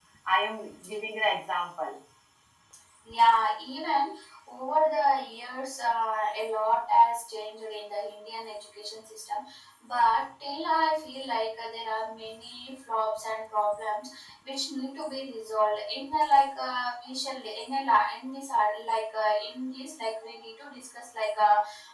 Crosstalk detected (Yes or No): No